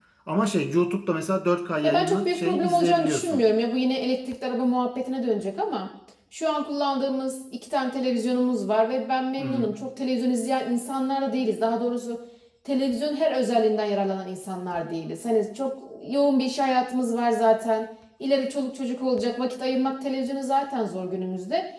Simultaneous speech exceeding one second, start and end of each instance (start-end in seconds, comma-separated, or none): 1.8-3.4